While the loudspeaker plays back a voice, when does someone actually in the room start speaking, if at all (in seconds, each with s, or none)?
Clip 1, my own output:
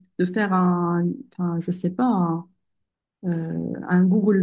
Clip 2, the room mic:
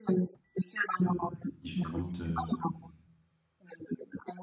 1.0 s